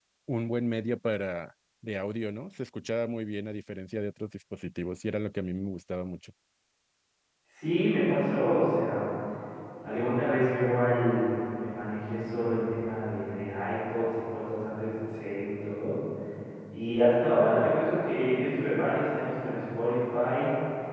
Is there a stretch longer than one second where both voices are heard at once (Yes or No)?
No